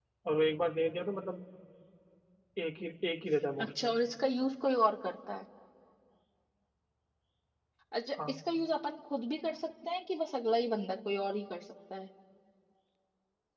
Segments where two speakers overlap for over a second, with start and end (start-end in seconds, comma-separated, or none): none